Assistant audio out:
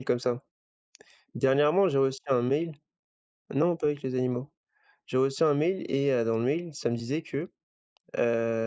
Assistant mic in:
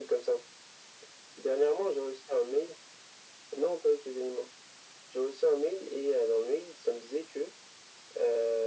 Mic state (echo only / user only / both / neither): echo only